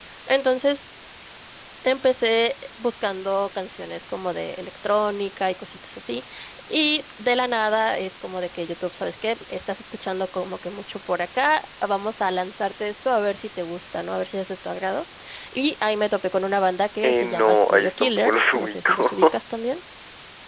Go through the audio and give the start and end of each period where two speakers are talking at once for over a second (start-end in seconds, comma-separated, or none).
17.0-19.4